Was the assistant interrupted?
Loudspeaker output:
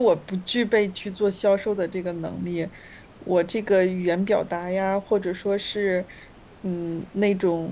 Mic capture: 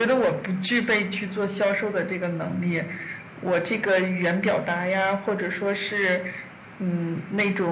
No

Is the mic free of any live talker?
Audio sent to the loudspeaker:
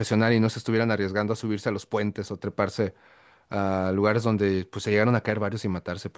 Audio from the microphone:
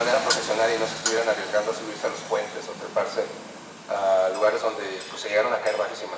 Yes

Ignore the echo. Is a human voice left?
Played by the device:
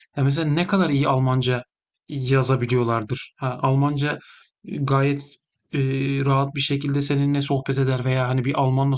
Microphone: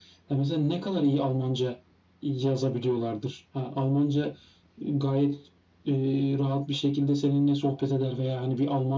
No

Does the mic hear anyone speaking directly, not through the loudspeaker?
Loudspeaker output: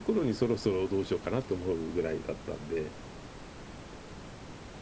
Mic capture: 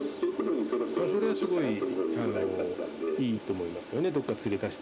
Yes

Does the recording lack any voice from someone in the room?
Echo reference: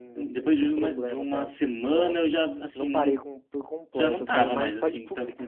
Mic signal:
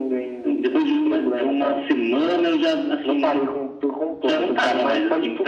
Yes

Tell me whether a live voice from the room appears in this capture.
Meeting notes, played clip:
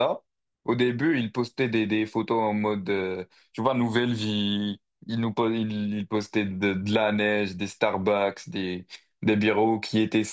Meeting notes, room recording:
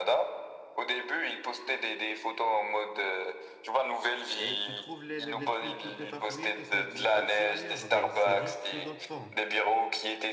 Yes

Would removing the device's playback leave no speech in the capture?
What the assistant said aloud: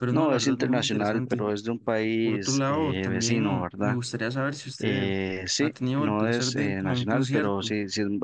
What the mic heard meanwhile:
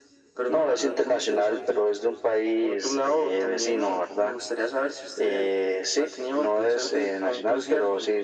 Yes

